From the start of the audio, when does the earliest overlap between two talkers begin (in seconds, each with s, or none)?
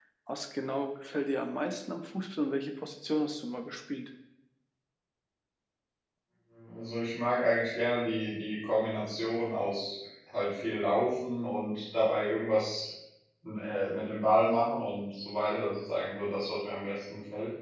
none